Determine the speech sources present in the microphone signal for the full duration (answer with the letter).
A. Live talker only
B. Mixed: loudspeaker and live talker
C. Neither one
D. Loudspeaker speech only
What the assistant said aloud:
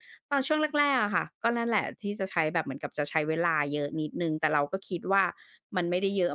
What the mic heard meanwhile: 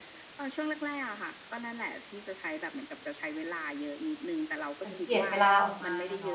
B